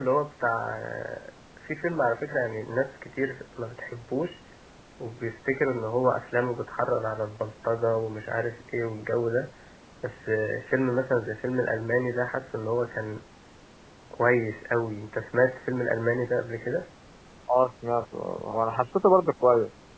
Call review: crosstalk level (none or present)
none